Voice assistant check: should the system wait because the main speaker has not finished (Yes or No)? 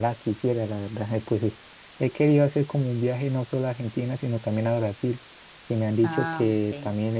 Yes